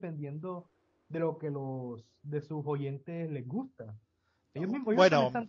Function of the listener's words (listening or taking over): taking over